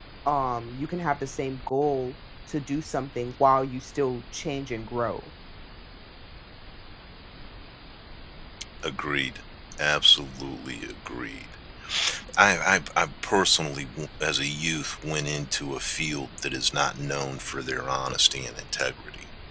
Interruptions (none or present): none